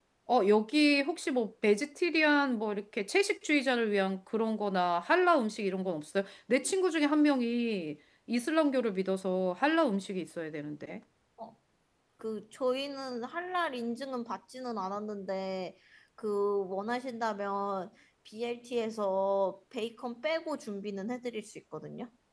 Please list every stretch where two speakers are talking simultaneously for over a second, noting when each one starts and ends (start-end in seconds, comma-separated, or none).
none